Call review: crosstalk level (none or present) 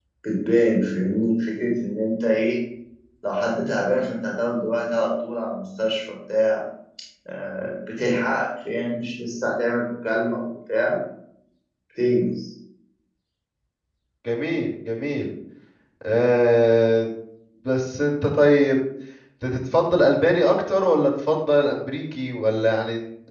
none